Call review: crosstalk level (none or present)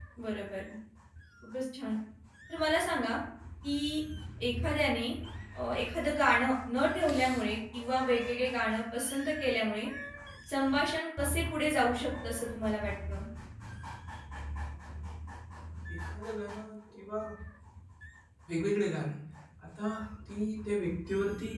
none